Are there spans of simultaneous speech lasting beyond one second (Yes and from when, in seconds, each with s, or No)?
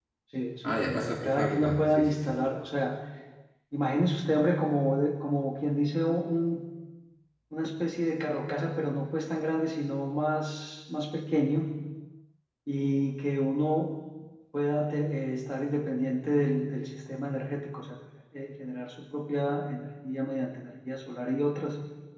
Yes, from 0.6 s